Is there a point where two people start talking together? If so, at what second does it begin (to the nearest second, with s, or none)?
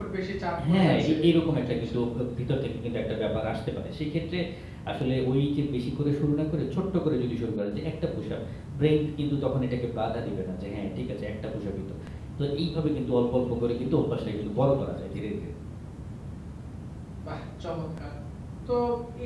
1 s